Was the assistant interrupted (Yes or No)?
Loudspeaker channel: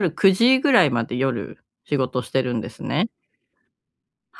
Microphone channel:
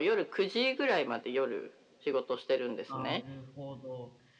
Yes